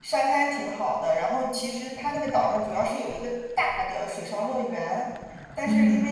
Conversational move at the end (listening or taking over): listening